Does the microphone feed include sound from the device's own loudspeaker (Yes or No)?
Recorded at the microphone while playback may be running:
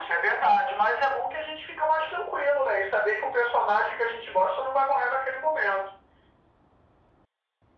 Yes